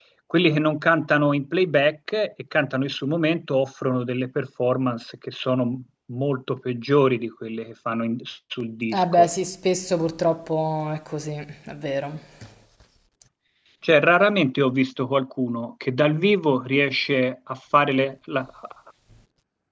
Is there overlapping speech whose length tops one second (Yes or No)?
No